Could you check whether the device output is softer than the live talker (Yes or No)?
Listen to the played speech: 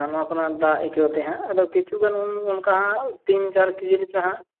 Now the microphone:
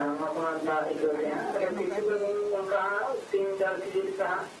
No